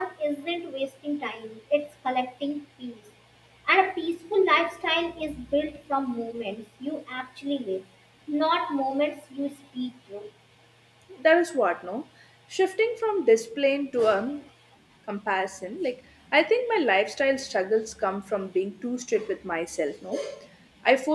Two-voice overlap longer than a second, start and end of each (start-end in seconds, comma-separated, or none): none